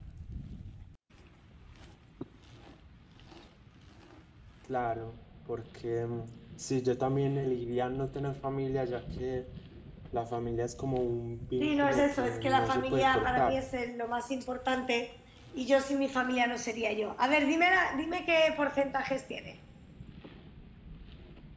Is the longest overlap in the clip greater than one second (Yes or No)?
Yes